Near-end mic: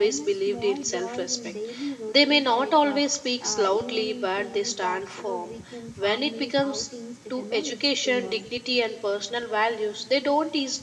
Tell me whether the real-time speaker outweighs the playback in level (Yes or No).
Yes